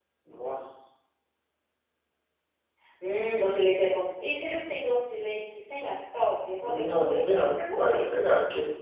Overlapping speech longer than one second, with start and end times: 6.6-8.1

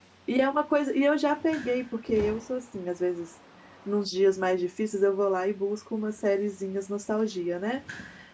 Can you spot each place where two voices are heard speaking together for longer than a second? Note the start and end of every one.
none

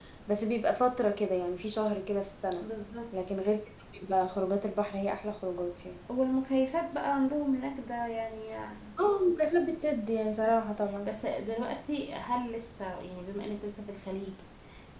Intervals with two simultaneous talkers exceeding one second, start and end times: none

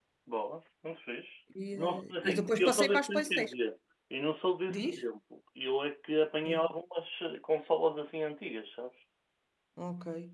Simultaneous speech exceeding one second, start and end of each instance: 1.8-3.5

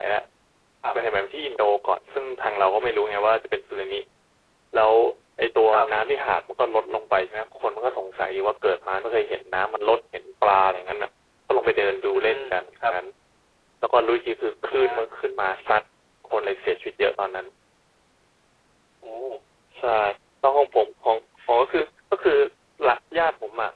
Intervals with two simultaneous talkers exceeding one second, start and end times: none

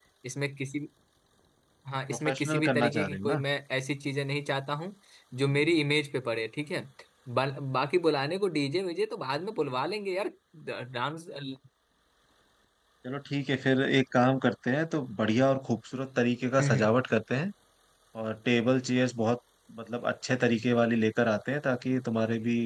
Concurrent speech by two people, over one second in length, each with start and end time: 2.1-3.4

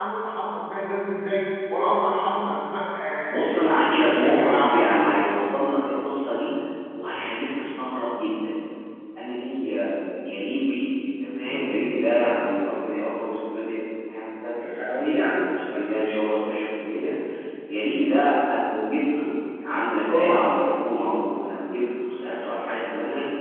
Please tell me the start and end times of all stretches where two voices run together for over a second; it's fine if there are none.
3.3-4.9

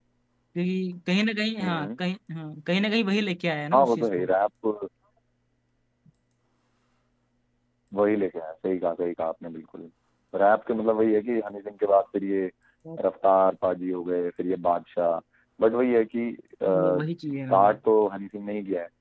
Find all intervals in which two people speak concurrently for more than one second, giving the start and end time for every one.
none

